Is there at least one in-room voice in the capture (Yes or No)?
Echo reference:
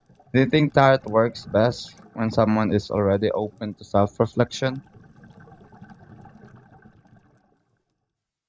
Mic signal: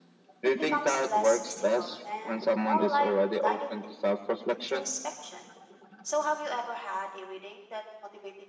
Yes